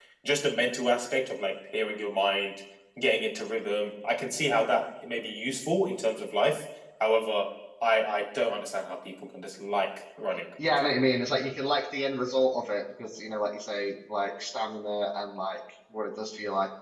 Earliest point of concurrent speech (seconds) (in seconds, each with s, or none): none